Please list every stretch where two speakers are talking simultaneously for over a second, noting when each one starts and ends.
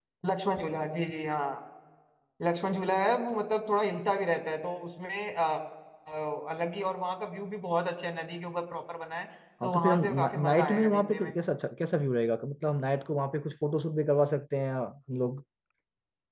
9.6-11.3

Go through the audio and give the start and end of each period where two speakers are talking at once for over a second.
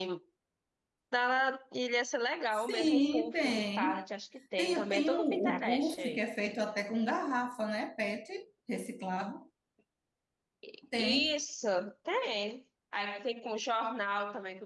2.5-4.0, 4.6-6.2

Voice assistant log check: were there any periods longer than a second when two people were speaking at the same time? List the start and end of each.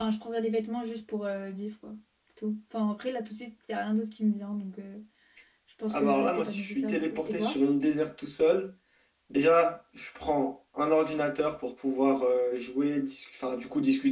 5.9-7.6

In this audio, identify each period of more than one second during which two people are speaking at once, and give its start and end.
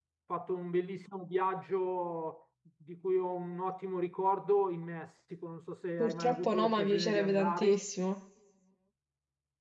6.0-7.9

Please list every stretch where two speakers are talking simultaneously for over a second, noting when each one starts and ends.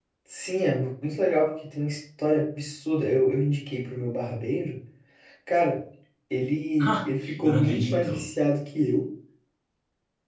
6.8-8.3

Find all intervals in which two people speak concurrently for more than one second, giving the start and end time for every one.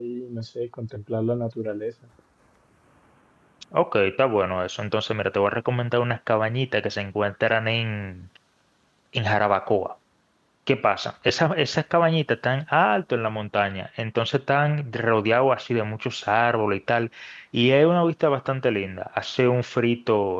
none

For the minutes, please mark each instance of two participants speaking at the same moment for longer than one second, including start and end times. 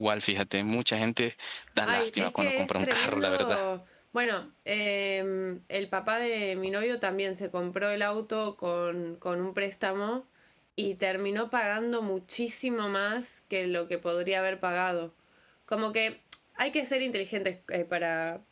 1.8-3.6

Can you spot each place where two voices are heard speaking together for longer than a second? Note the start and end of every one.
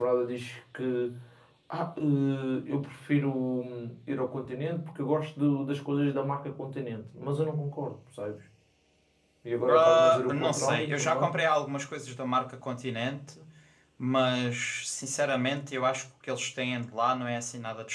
9.7-11.3

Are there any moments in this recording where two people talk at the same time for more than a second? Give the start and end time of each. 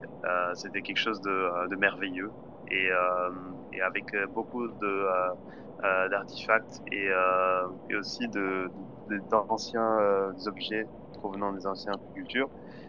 none

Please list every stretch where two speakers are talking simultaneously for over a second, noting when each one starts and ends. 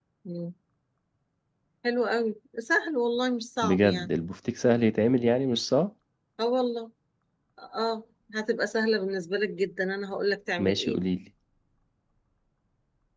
none

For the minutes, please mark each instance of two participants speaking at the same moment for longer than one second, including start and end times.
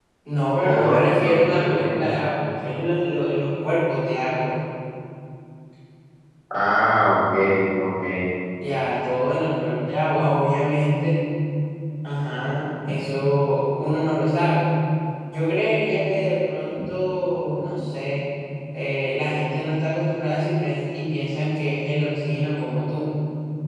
0.6-2.2

